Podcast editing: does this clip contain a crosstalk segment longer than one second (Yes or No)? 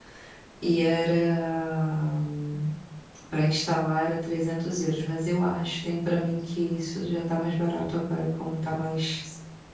No